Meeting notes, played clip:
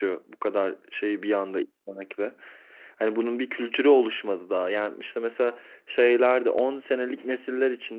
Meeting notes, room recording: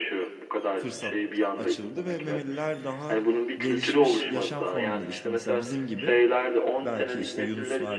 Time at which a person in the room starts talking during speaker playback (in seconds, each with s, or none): 0.8 s